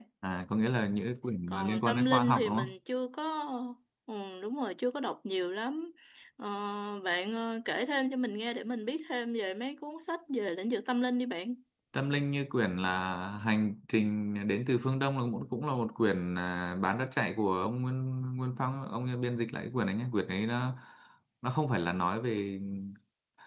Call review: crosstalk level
present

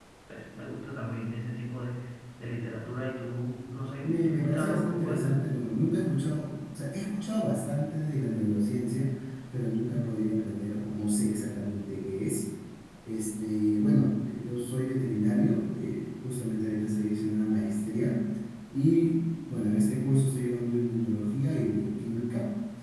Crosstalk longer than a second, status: present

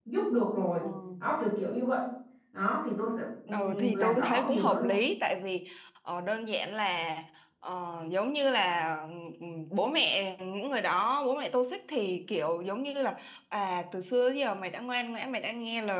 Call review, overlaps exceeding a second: present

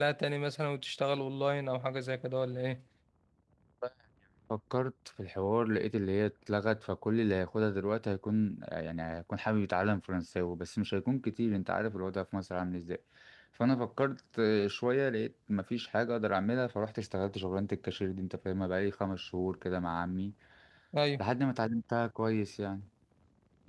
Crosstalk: none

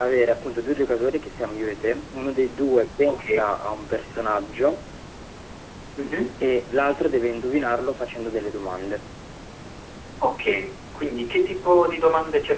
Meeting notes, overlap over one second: none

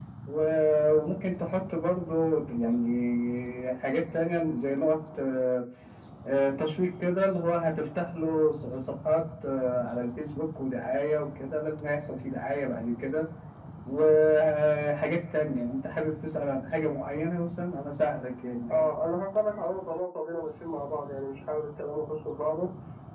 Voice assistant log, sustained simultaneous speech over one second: none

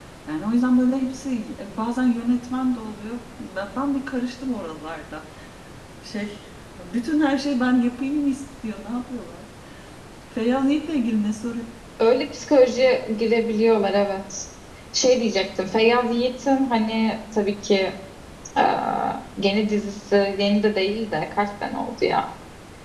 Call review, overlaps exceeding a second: none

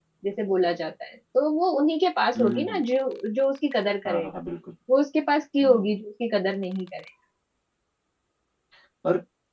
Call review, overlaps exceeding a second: none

